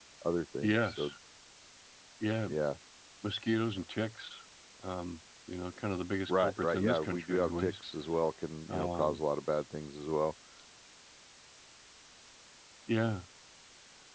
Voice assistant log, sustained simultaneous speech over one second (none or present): present